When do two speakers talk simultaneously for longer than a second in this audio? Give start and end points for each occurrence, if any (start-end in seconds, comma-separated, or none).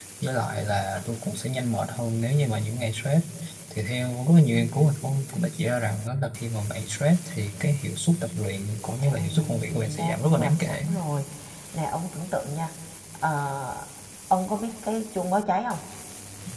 9.0-10.8